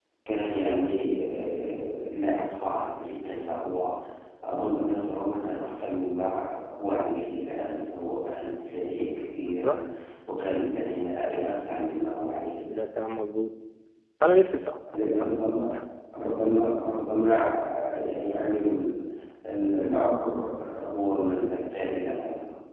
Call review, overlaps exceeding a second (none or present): none